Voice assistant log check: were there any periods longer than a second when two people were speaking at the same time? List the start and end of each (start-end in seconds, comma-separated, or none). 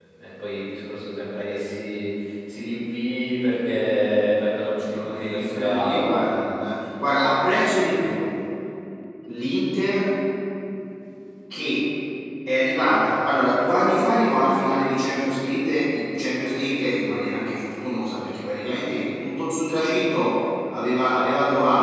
4.5-6.5